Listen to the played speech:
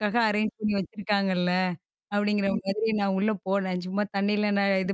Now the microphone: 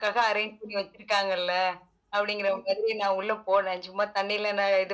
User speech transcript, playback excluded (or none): none